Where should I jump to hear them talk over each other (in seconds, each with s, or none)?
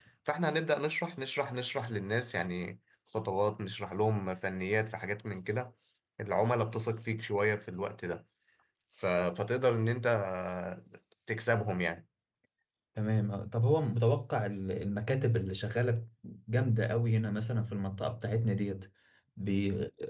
none